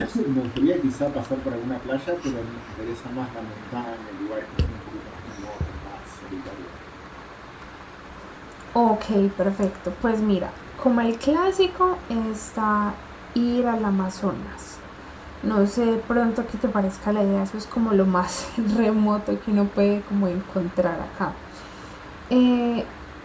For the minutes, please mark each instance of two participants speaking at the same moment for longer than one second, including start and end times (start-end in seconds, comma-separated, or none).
none